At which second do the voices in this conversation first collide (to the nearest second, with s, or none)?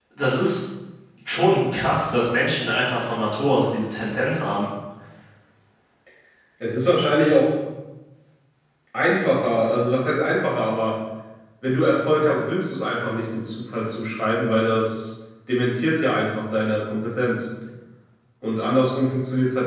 none